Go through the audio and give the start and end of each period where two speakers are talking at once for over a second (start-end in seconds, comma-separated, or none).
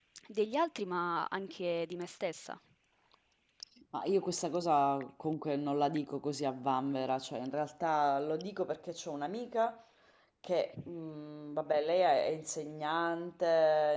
none